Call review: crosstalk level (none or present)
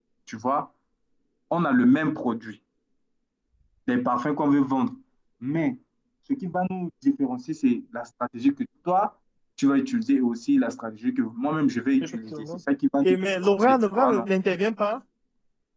present